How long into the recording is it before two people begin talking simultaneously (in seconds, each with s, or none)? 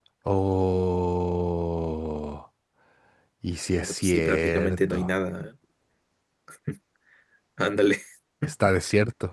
3.8 s